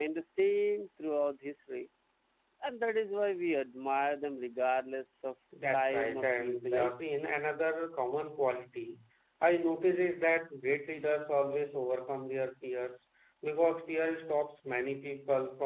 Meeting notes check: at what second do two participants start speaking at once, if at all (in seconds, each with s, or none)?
5.5 s